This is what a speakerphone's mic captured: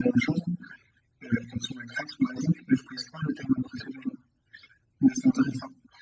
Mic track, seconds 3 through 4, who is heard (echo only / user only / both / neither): echo only